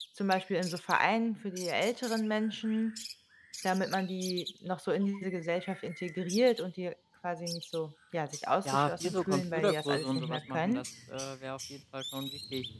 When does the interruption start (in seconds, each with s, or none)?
8.7 s